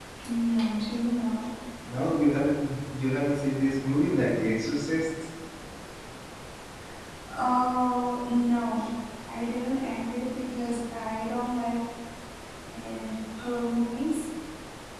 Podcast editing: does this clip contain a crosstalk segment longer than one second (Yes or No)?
No